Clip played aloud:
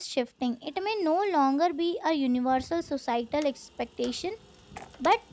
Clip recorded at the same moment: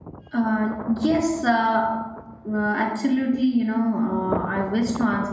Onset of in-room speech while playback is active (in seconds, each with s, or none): 0.3 s